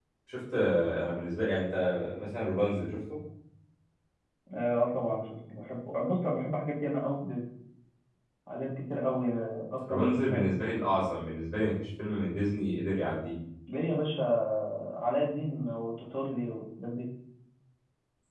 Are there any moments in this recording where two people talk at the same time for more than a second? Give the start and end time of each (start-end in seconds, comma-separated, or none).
none